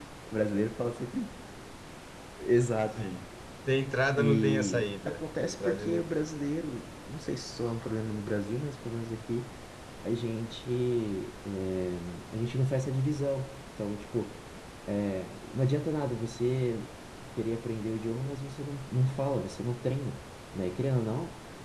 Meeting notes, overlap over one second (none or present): present